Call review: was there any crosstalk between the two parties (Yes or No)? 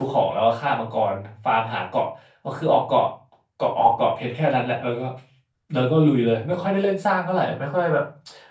No